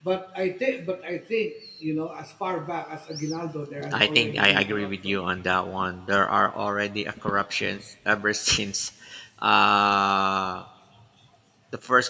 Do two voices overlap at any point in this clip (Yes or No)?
Yes